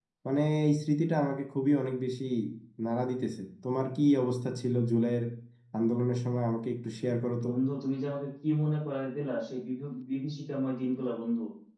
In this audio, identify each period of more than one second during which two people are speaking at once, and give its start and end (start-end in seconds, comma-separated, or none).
none